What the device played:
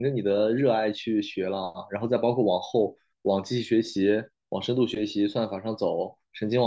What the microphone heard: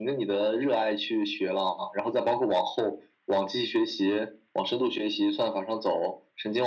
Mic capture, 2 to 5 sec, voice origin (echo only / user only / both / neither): echo only